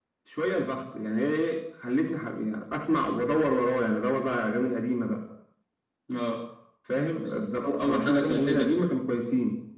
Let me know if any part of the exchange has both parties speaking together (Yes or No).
Yes